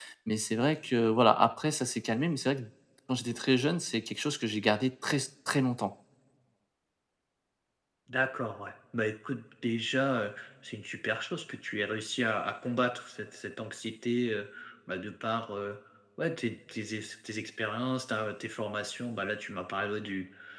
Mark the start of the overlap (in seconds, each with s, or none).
none